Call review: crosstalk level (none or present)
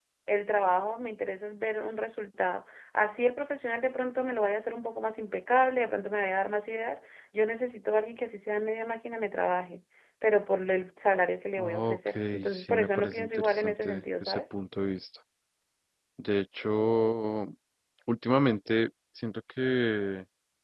present